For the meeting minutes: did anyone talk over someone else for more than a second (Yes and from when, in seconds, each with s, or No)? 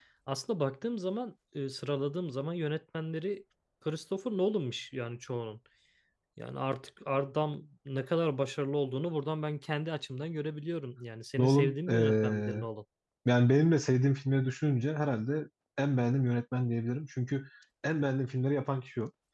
Yes, from 11.4 s